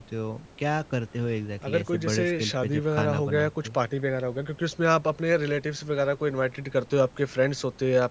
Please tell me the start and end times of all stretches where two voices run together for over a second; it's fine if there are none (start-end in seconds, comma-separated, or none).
1.7-3.8